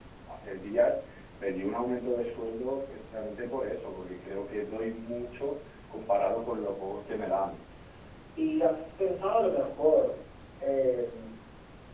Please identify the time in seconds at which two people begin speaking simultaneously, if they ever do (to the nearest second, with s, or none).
none